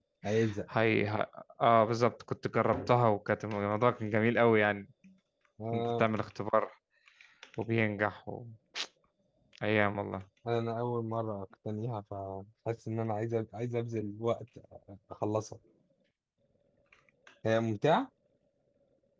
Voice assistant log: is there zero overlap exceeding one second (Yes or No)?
Yes